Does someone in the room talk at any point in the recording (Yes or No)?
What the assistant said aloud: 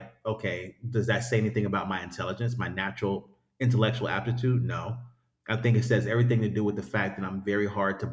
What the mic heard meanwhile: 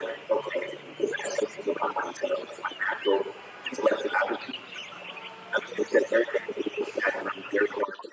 No